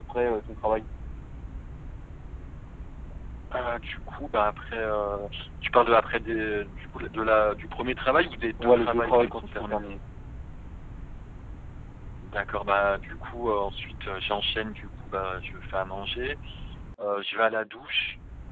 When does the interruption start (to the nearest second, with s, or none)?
9 s